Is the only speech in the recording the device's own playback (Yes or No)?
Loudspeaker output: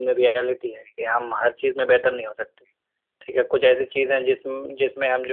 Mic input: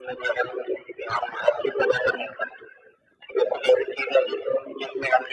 Yes